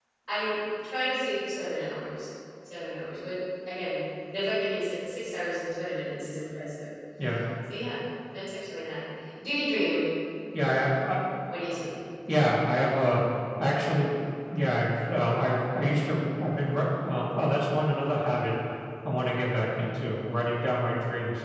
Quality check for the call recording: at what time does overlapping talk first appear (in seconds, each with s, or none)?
none